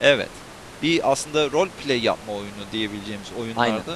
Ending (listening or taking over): listening